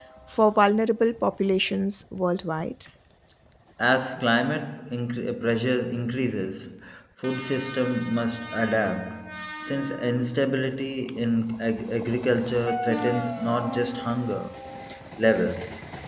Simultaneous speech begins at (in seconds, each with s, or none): none